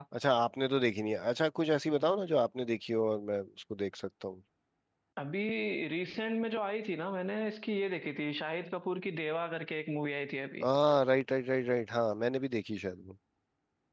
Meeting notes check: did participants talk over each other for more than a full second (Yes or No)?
No